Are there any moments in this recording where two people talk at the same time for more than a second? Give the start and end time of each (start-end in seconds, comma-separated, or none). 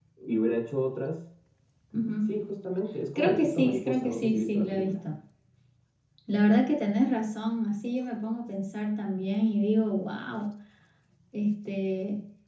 3.1-4.9